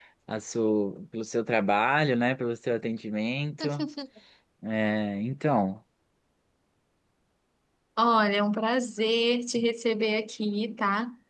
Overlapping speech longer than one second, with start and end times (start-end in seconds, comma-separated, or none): none